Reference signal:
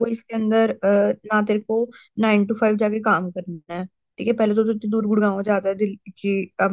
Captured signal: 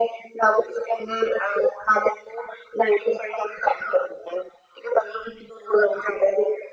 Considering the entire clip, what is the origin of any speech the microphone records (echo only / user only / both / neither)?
echo only